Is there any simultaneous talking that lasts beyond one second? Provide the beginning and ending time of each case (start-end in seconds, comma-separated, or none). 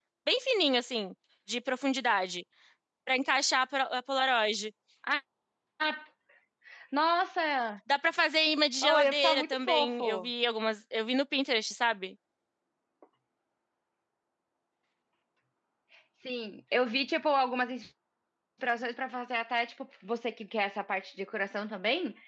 8.8-10.3